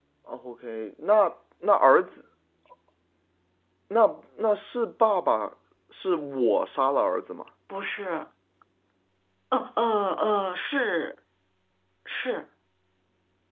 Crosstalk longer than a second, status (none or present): none